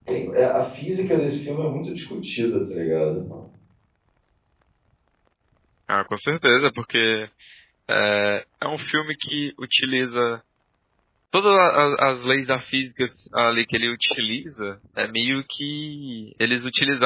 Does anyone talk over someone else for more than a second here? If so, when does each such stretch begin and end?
none

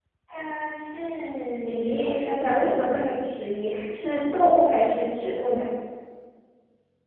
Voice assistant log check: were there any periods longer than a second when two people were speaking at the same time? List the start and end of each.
1.9-3.2

